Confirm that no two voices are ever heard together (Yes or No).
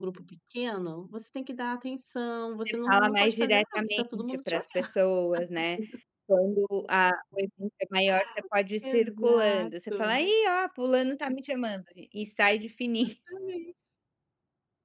No